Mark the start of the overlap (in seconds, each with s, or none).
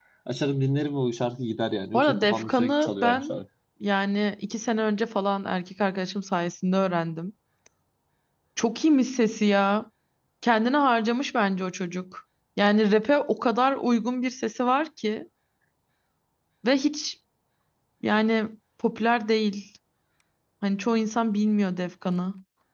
1.9 s